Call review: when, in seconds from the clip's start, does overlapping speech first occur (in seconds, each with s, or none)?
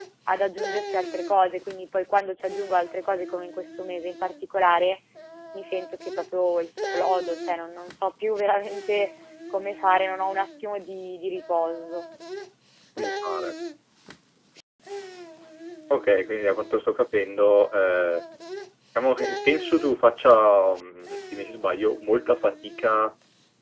none